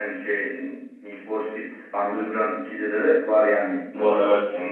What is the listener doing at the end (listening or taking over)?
listening